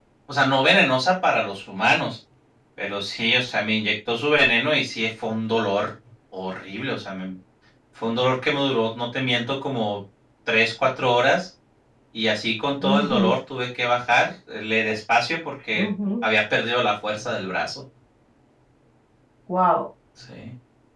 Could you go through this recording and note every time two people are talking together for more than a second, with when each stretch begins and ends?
none

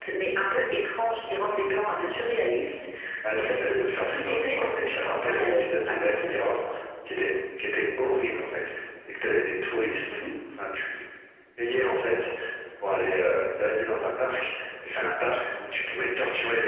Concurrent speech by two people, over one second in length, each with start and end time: 3.3-6.5

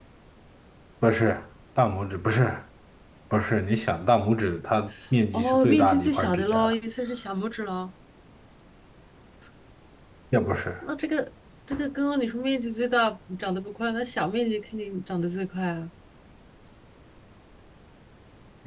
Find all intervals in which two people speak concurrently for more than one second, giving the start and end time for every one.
5.3-6.7

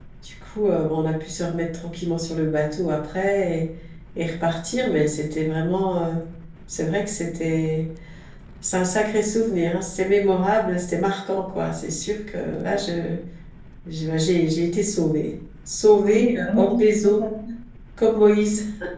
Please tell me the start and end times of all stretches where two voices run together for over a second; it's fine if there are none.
16.0-17.3

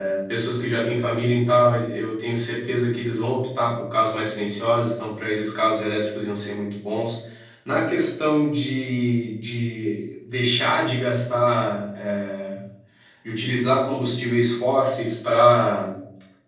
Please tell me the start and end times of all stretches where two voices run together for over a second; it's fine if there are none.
none

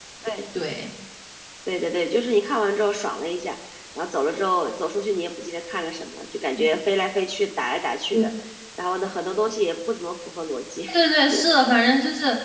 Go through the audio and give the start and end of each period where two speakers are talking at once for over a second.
none

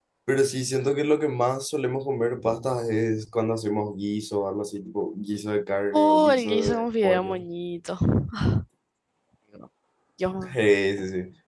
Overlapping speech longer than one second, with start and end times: 5.9-7.4

